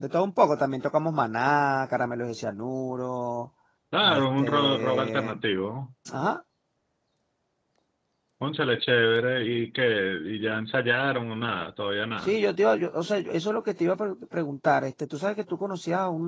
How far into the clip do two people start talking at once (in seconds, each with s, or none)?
4.0 s